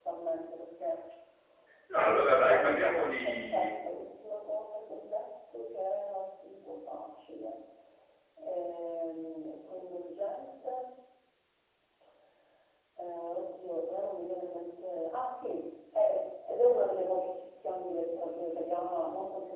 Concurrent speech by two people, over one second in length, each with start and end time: 1.9-3.7

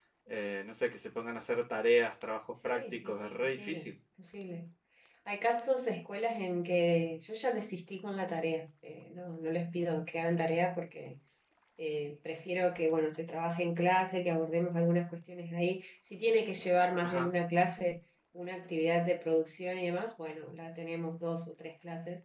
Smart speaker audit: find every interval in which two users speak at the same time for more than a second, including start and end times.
2.6-3.9

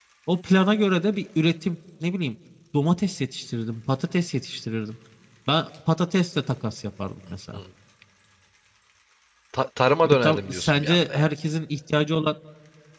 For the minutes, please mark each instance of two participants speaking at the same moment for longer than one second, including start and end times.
10.0-11.2

